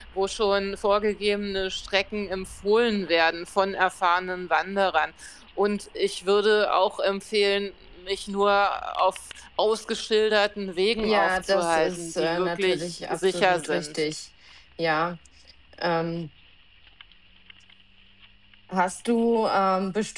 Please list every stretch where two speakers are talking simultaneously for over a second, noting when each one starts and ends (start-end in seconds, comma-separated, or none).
11.0-14.0